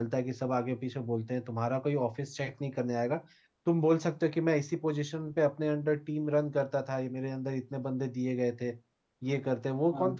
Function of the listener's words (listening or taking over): listening